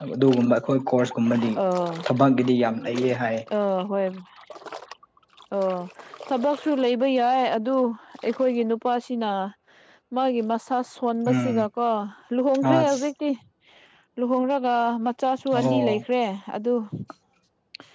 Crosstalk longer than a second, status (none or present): none